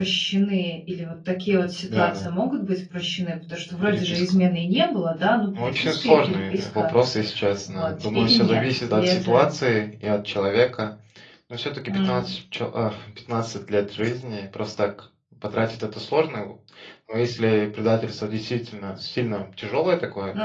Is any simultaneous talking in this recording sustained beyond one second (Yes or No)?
Yes